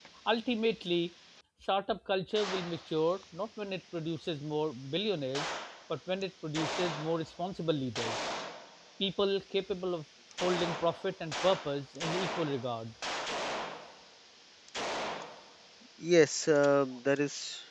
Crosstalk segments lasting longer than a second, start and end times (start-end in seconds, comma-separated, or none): none